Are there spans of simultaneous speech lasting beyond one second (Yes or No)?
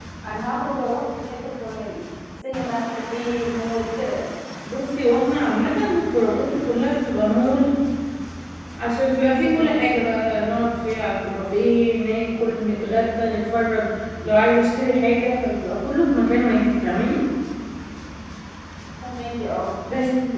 No